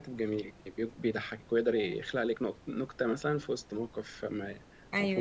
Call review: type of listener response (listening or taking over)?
taking over